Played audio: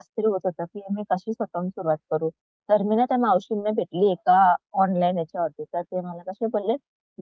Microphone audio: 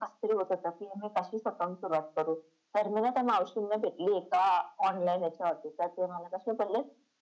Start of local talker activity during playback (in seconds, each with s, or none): none